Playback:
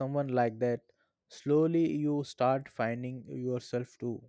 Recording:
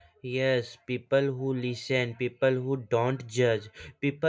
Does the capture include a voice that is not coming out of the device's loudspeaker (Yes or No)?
Yes